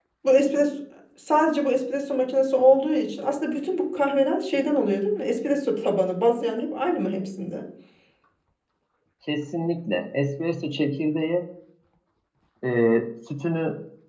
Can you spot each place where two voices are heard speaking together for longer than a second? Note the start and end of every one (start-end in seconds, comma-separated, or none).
none